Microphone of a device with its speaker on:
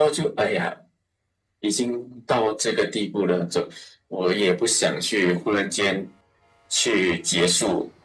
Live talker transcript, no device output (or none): none